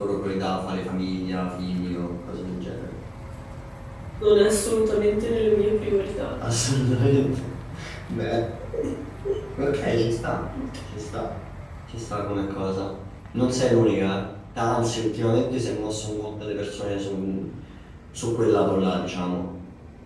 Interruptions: none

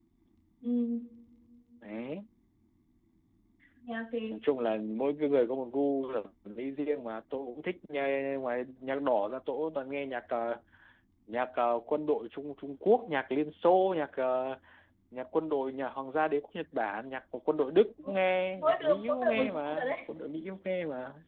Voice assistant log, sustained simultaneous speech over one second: present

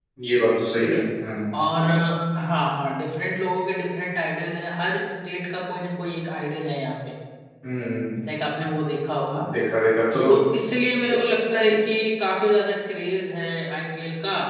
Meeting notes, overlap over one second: none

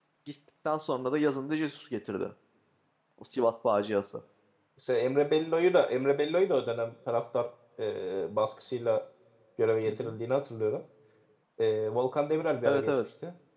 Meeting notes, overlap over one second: none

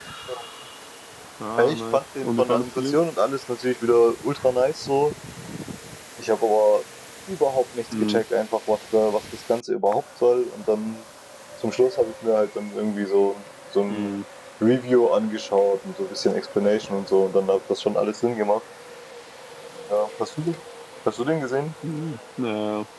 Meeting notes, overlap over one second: present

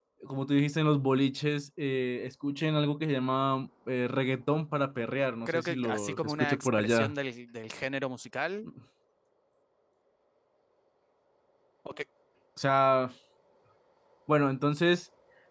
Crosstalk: present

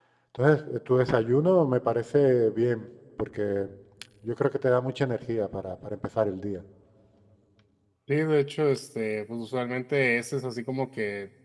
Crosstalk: none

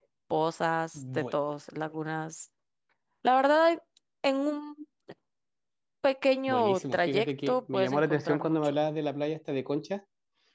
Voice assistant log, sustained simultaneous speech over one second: present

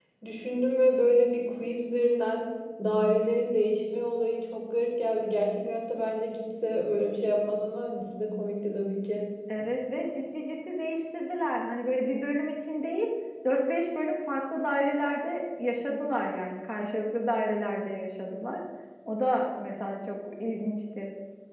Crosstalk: none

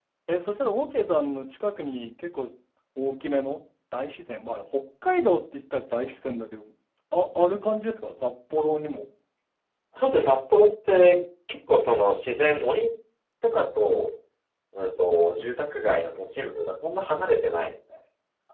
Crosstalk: none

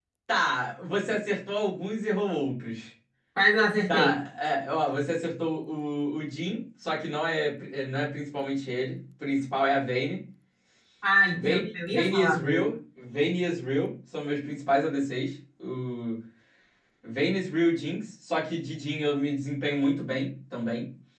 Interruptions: present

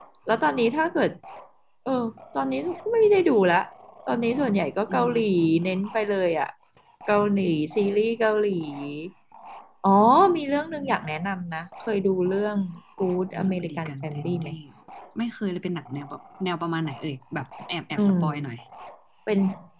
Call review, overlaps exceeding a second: present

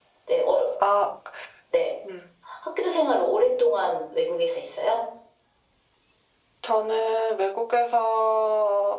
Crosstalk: none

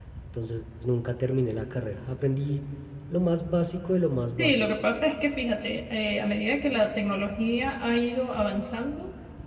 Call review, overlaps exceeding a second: none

